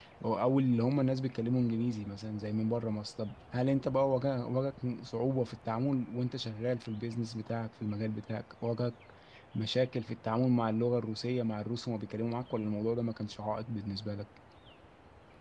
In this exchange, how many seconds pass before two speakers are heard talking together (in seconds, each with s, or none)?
none